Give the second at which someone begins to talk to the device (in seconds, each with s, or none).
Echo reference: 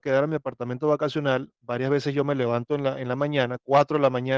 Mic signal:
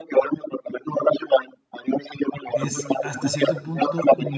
2.5 s